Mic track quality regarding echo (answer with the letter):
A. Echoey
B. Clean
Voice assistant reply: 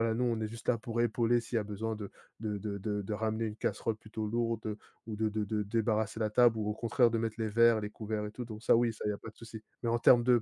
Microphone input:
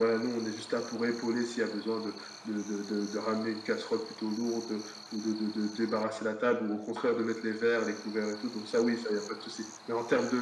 A